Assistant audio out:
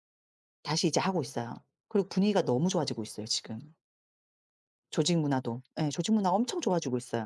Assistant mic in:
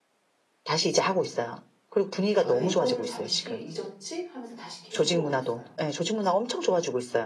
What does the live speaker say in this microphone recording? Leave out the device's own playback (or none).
예 이거를 잠시 잊었지?' 하면서 다시 계속 끌어올렸어요.